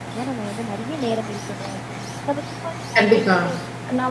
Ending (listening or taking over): listening